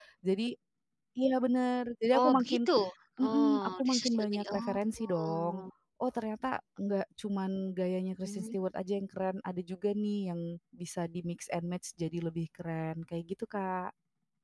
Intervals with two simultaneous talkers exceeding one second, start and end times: 3.2-5.6

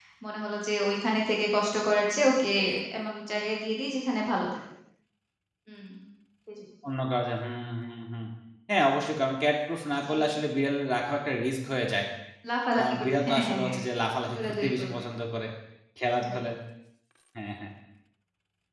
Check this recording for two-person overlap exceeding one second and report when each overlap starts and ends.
12.8-15.0

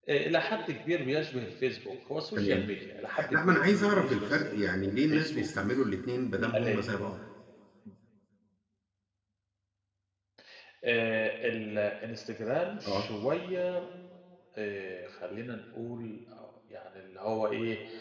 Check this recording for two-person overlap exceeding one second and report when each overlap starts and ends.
3.3-5.5

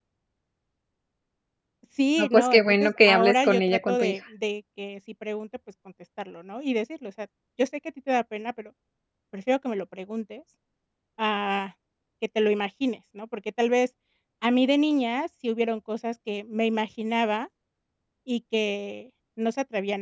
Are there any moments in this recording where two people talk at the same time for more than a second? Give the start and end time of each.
2.2-4.2

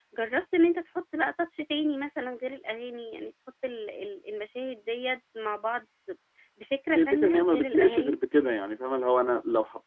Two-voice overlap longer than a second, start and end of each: 6.9-8.2

